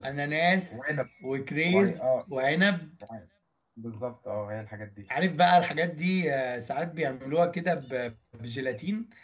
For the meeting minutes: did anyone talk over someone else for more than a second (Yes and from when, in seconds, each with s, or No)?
No